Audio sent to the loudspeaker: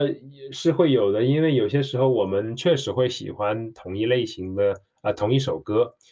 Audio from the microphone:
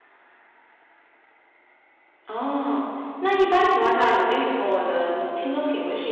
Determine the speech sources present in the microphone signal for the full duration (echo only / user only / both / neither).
user only